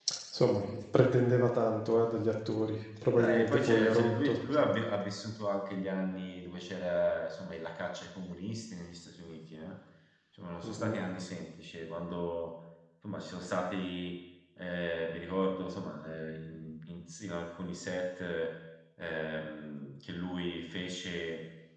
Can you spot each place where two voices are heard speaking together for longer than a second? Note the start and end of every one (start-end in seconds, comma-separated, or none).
3.2-4.4